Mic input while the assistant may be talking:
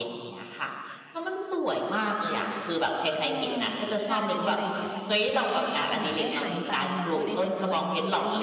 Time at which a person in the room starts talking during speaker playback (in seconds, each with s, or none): 3.2 s